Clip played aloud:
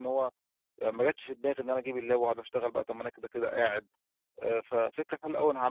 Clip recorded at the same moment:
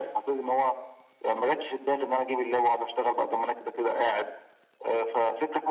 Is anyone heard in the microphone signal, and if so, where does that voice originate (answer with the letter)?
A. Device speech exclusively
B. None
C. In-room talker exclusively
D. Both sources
A